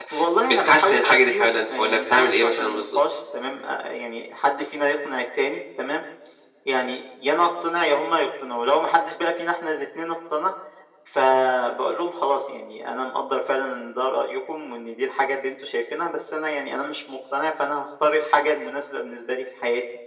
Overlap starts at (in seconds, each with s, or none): 0.5 s